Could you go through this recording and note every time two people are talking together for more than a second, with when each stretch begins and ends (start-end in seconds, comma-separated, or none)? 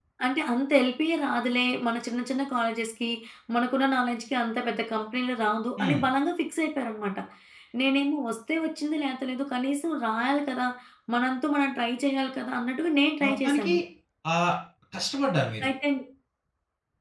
none